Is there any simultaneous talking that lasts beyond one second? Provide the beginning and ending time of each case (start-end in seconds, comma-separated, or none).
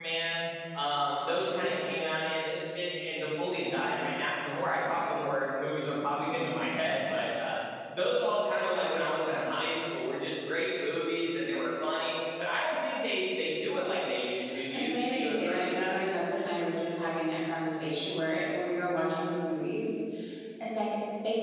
14.7-16.0